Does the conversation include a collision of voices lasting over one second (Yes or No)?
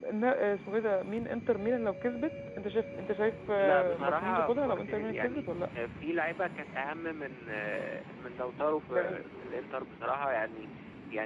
Yes